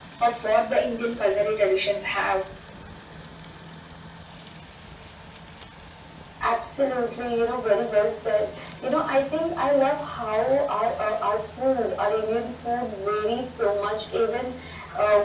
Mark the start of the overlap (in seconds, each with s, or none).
none